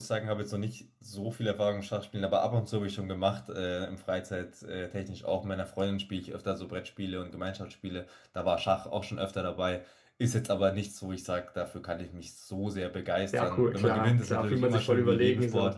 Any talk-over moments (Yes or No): Yes